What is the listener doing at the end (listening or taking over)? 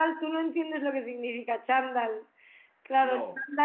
listening